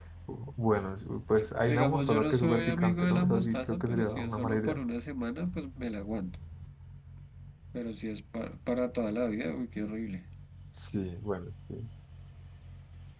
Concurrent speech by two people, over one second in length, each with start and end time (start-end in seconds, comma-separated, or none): 1.4-4.8